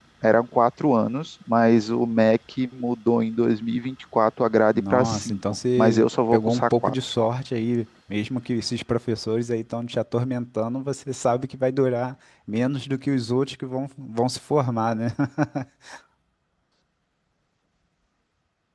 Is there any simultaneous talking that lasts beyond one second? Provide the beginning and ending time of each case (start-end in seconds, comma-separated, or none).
4.7-6.9